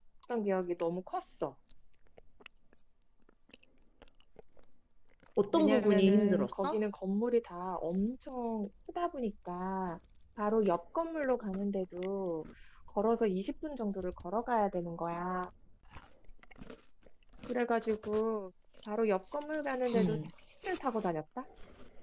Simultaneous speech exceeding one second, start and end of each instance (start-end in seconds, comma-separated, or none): 5.5-6.8